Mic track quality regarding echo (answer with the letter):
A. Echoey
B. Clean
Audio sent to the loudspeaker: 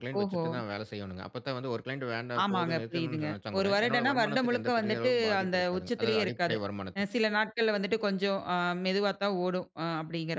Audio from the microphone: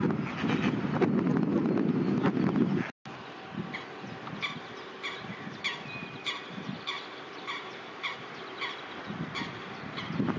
B